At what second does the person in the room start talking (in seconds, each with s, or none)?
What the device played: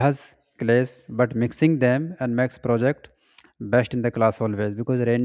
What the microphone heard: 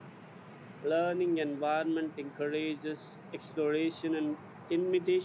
0.8 s